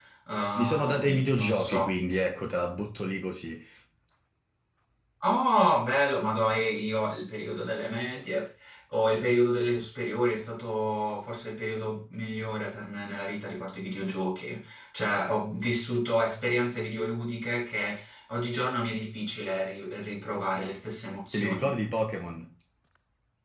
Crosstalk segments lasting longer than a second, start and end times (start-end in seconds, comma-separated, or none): 0.6-1.9